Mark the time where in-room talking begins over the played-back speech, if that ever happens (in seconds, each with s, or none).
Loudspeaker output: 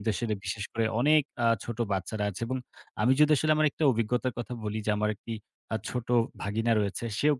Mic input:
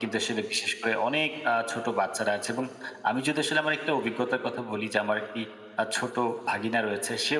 none